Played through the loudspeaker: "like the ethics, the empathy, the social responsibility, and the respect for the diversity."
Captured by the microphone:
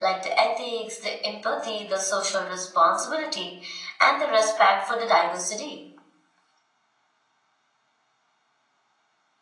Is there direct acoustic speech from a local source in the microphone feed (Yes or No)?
No